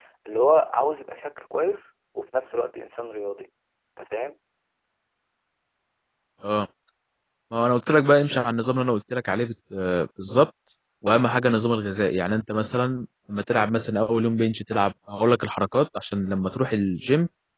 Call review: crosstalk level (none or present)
none